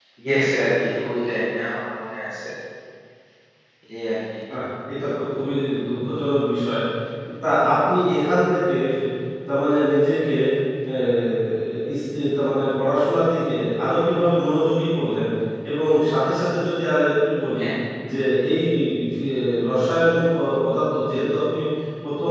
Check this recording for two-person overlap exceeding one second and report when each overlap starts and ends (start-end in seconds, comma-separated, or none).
none